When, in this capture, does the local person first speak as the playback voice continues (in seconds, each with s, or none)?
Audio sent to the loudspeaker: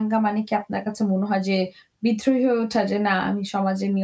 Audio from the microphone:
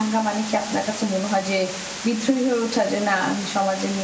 none